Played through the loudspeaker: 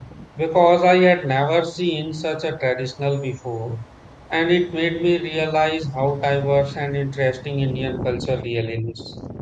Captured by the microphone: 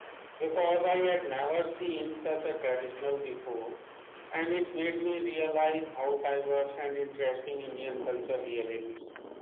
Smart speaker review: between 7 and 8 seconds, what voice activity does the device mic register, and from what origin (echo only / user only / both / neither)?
echo only